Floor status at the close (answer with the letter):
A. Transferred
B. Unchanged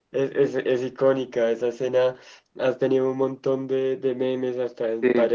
B